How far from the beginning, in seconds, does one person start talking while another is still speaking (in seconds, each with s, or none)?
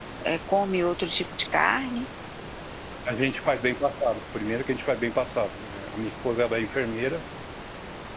none